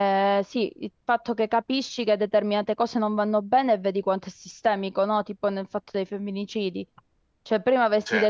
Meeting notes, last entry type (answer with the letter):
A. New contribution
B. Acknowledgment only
B